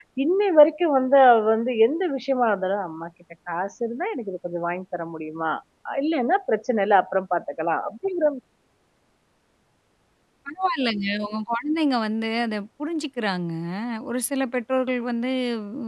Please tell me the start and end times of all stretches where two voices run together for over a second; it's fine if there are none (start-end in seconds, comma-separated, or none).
none